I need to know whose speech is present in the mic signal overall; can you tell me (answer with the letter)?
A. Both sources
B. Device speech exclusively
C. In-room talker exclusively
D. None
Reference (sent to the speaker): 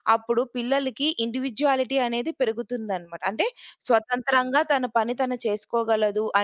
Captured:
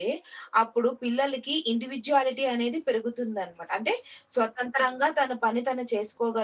B